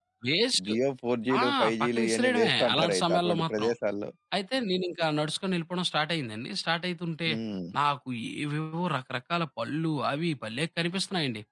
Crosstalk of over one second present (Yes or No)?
Yes